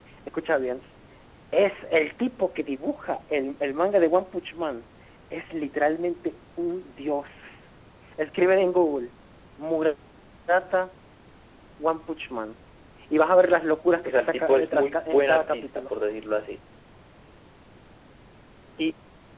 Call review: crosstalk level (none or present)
present